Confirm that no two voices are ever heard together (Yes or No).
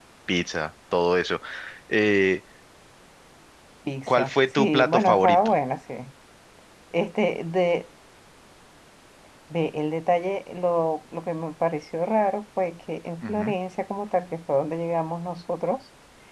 No